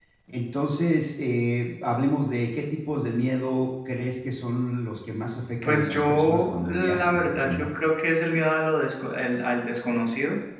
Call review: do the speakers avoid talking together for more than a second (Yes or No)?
No